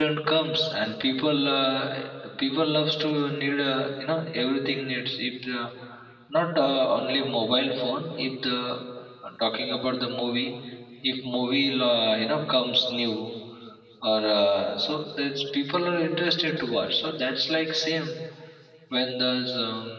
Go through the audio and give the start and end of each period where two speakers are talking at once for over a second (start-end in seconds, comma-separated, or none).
none